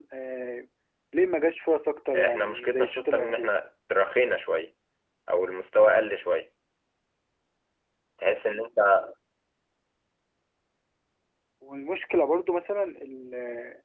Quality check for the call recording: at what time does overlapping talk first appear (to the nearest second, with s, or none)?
2 s